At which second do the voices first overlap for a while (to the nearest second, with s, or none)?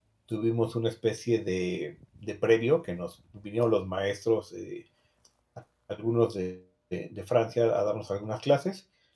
none